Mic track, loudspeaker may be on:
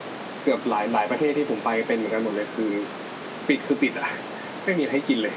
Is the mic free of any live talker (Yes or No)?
Yes